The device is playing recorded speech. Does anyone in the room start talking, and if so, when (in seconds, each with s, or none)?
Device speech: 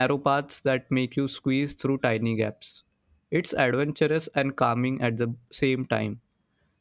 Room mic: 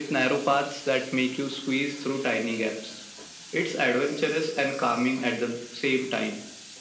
none